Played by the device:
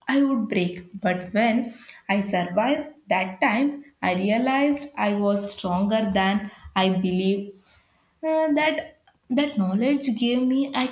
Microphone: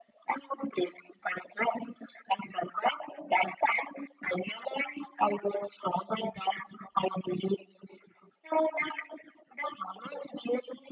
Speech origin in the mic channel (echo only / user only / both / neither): echo only